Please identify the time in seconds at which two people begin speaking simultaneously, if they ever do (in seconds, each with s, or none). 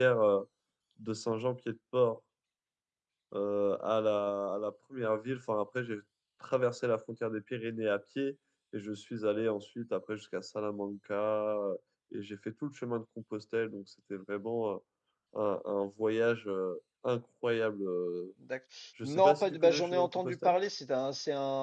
19.0 s